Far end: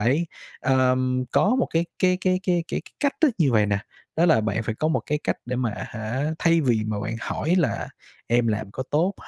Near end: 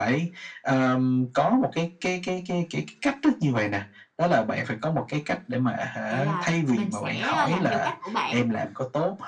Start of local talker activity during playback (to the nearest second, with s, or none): 6 s